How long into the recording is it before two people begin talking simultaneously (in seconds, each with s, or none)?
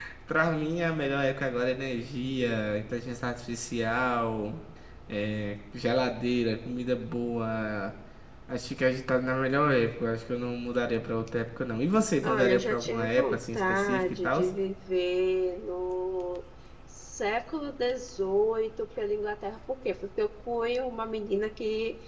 12.2 s